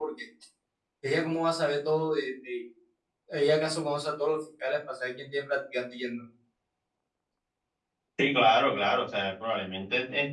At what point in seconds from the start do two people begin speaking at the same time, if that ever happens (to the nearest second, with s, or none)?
none